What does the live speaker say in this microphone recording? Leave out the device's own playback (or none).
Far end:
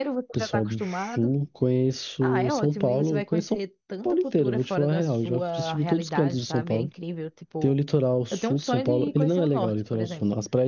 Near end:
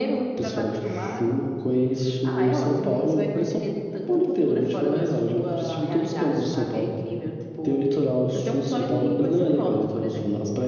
none